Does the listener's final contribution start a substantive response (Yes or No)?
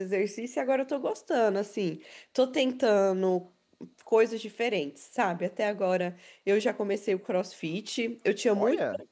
No